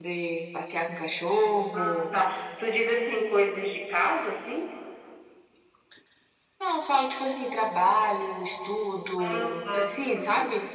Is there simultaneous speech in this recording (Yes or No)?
Yes